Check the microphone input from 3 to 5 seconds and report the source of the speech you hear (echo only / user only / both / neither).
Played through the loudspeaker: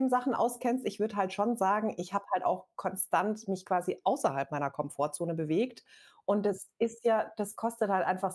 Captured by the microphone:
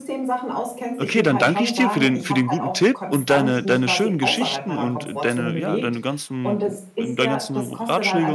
both